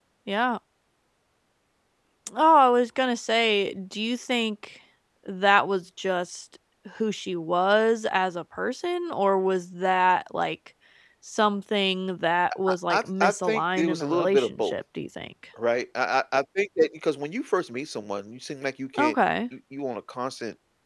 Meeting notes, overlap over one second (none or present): present